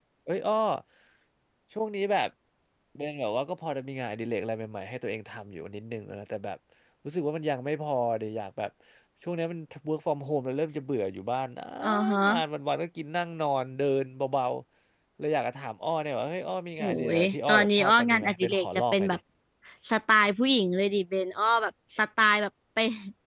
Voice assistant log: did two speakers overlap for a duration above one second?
Yes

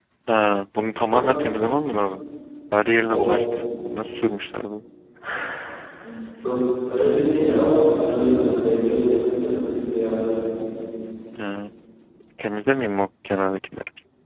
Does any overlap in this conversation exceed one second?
No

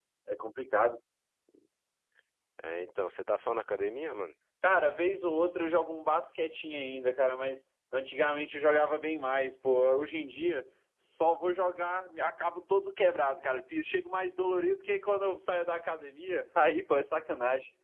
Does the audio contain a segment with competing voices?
No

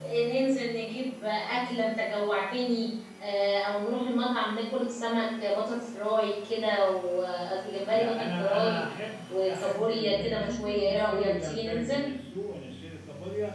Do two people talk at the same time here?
Yes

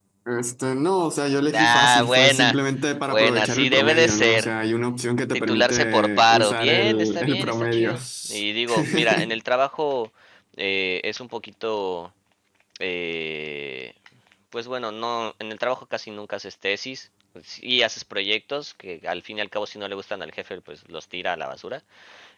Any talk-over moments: Yes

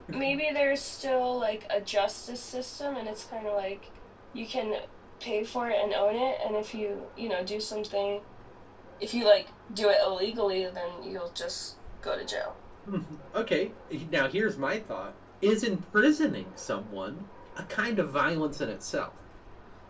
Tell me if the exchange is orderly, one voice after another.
Yes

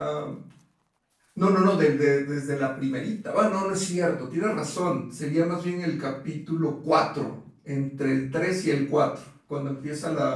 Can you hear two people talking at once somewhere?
No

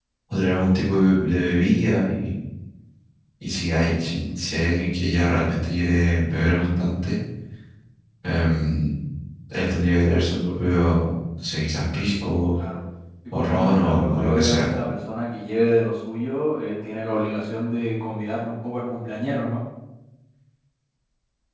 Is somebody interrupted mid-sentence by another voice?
Yes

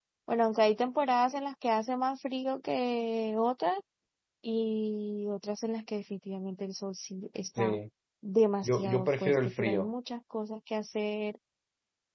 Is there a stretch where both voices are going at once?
Yes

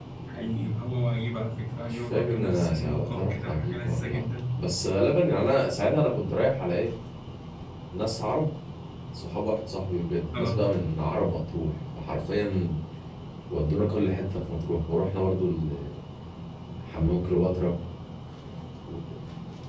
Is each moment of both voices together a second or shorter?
No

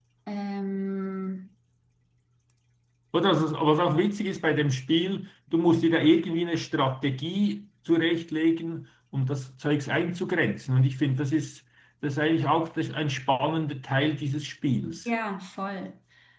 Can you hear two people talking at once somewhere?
No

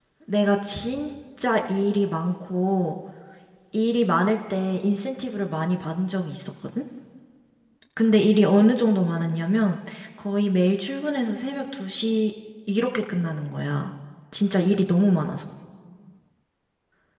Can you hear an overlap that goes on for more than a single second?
No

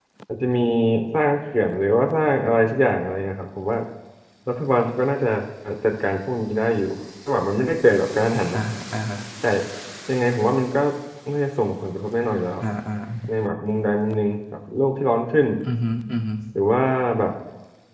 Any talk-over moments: No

